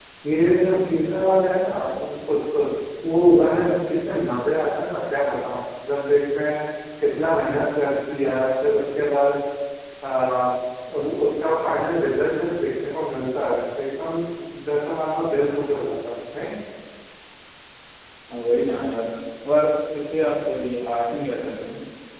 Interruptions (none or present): none